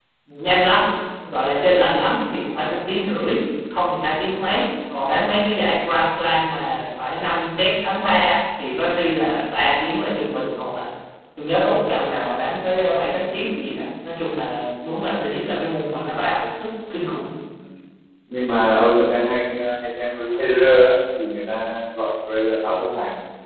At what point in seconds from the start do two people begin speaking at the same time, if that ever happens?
none

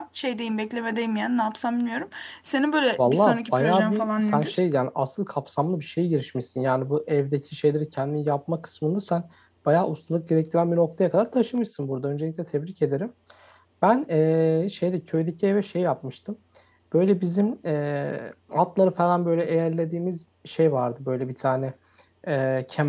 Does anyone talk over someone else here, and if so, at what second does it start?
3.0 s

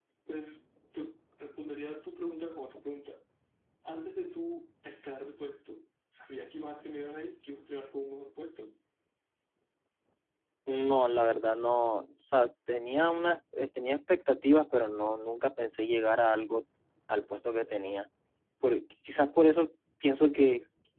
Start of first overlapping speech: none

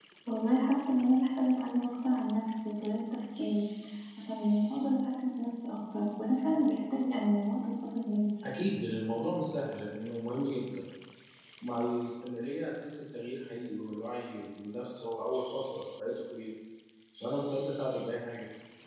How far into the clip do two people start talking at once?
none

